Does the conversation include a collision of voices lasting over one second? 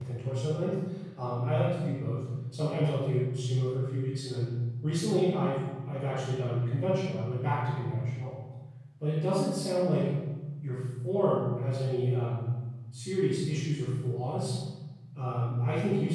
No

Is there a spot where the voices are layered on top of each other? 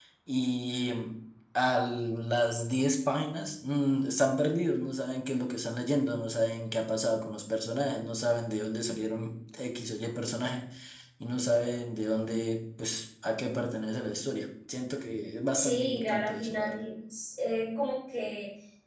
Yes, from 15.6 s

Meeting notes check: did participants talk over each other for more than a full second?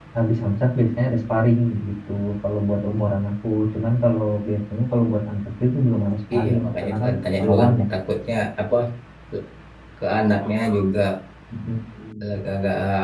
Yes, from 6.3 s

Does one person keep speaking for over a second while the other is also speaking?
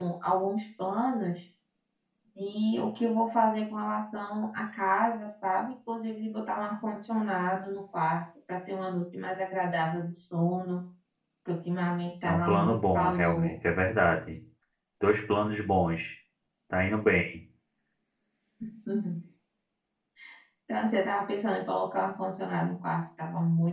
Yes, from 12.2 s

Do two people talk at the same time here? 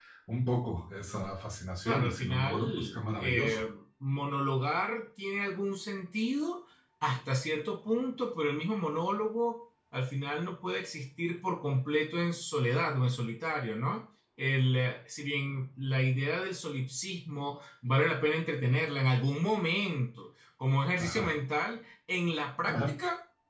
Yes, from 1.8 s

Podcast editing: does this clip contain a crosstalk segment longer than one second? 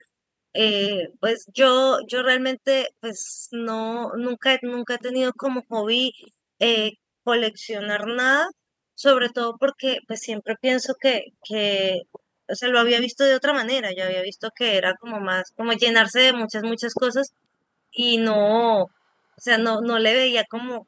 No

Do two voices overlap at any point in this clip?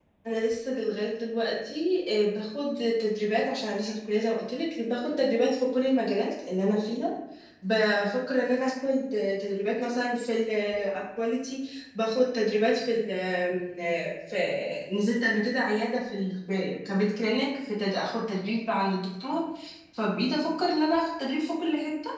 No

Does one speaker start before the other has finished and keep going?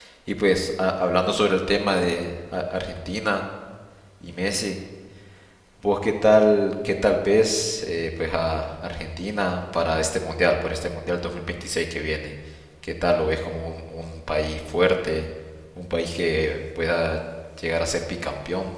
No

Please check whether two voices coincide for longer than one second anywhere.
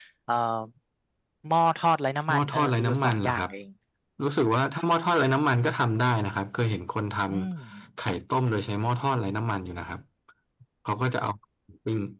Yes, from 2.3 s

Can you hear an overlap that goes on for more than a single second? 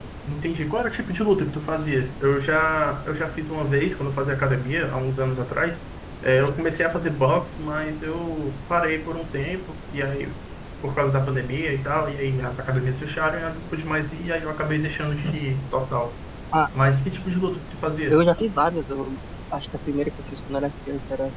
No

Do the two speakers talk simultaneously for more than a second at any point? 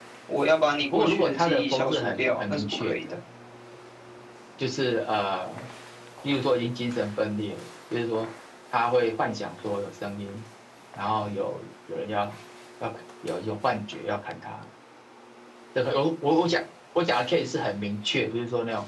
Yes, from 0.9 s

